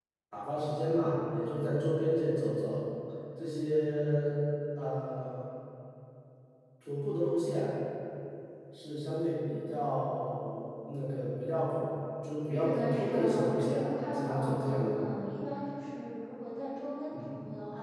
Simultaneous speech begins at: 12.5 s

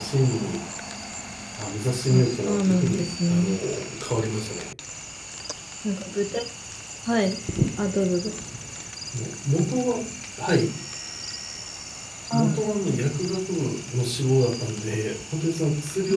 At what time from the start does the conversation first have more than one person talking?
2.1 s

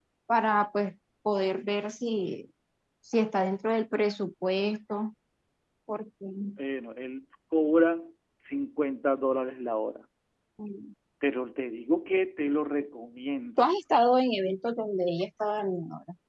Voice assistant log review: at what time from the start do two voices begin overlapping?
none

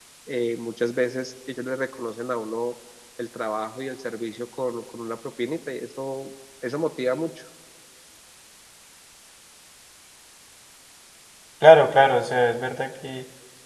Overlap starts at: none

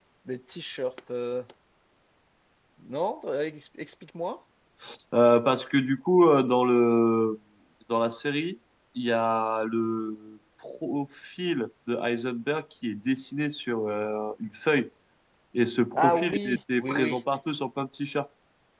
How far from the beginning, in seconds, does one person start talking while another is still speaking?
16.0 s

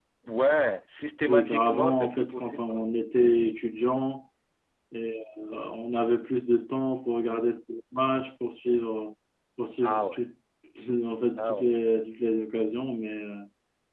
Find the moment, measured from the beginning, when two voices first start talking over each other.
1.3 s

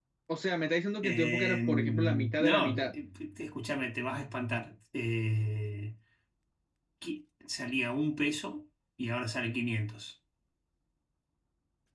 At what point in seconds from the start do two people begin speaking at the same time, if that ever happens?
1.1 s

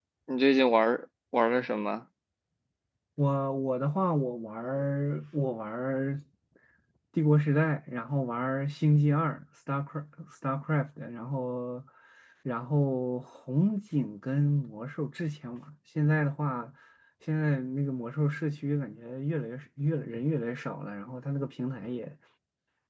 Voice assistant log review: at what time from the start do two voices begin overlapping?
none

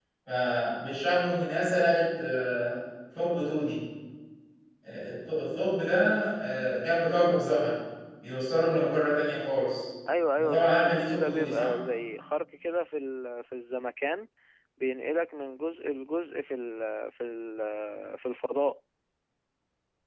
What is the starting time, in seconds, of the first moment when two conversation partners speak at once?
10.4 s

